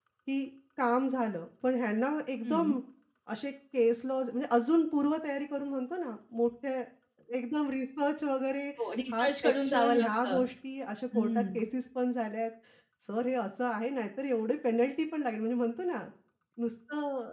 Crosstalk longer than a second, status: present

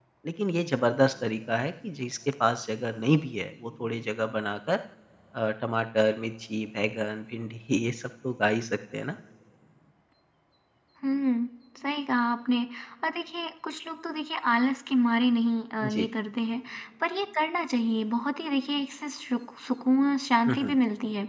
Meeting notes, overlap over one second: none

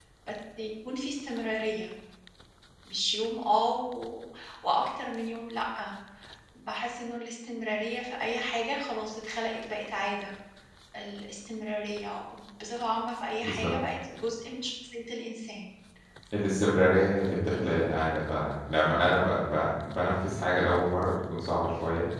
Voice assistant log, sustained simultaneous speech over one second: none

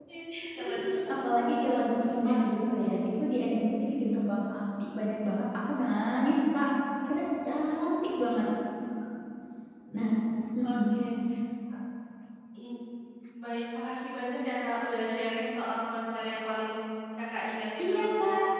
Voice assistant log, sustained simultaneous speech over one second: none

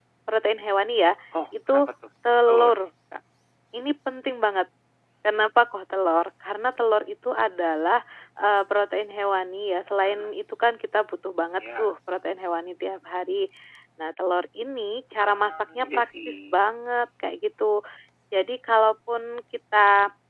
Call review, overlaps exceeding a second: present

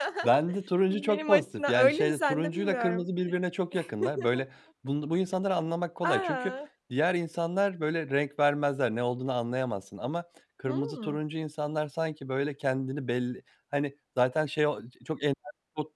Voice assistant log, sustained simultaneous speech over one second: present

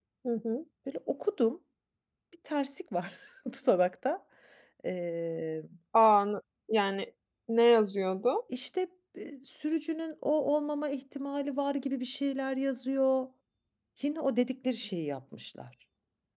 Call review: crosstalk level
none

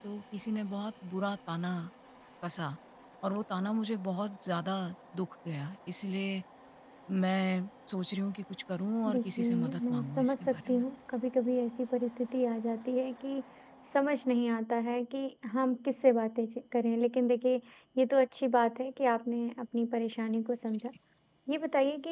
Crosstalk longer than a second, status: present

